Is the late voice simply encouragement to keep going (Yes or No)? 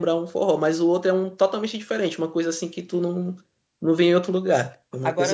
No